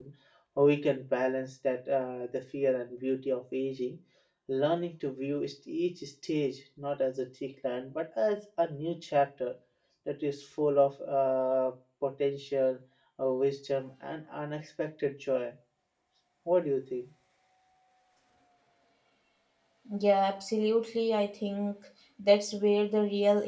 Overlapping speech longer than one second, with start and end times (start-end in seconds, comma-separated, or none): none